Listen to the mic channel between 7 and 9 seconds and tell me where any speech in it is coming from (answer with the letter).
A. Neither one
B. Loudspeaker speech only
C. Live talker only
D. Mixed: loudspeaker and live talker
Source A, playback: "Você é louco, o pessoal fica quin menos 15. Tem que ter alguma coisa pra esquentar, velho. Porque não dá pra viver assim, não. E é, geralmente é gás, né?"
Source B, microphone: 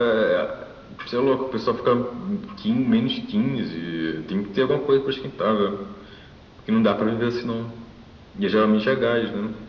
B